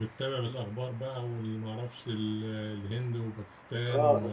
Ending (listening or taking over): taking over